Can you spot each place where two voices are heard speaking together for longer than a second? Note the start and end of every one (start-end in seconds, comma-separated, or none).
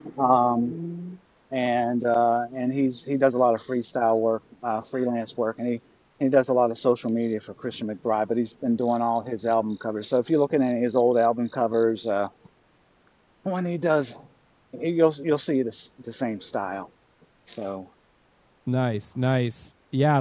none